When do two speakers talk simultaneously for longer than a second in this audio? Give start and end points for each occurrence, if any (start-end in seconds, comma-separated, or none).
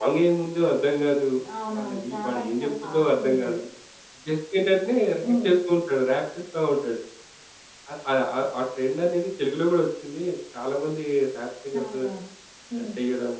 1.7-3.6